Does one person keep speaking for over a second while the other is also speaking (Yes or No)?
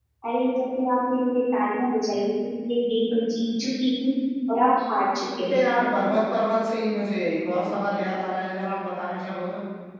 No